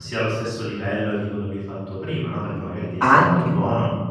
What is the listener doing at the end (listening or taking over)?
listening